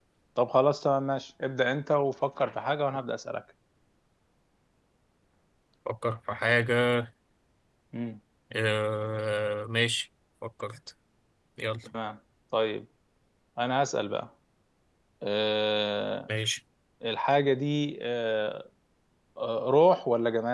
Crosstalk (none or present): none